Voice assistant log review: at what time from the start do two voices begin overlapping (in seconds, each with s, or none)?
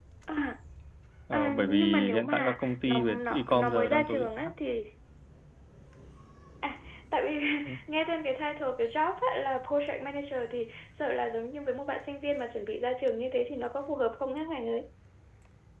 1.3 s